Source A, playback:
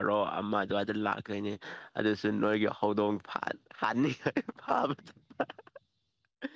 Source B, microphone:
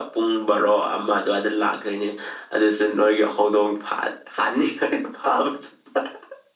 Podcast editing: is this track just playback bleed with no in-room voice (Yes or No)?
Yes